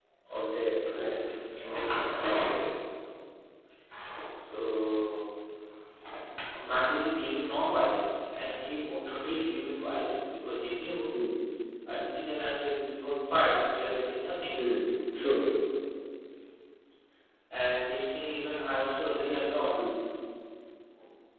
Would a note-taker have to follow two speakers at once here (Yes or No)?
No